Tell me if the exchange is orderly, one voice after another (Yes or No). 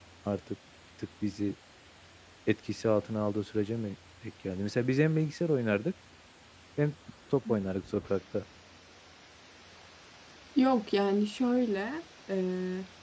Yes